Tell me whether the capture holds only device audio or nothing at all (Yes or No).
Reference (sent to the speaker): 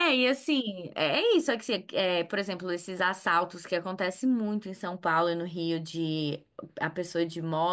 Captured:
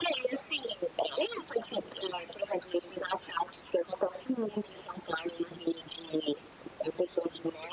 Yes